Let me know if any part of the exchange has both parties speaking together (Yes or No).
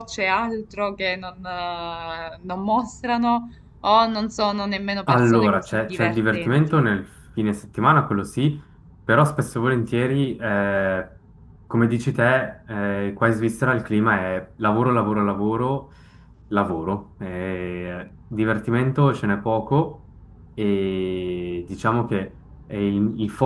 Yes